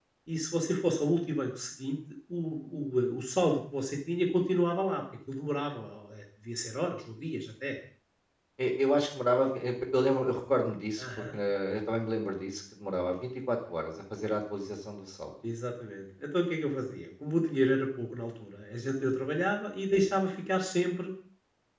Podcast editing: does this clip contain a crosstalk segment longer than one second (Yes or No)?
No